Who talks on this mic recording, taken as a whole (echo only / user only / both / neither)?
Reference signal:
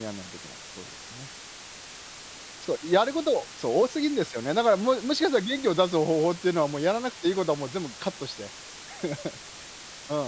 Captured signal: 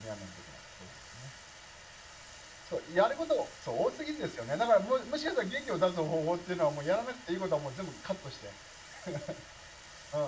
echo only